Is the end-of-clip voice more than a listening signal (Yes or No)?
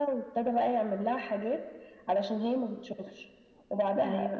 No